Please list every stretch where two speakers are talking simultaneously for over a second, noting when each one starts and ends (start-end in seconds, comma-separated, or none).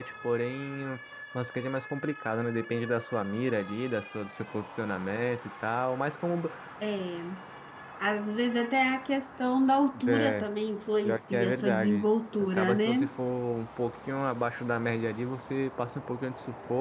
11.0-13.1